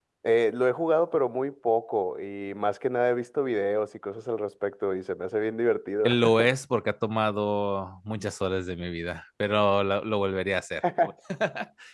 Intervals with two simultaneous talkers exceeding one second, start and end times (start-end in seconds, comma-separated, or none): none